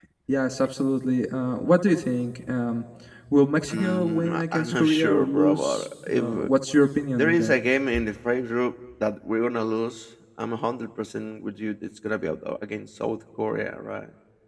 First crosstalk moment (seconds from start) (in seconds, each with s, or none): 3.7 s